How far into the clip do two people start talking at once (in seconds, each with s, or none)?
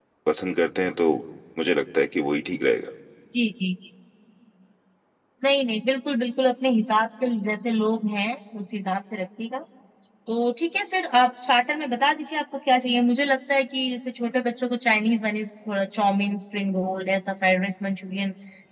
none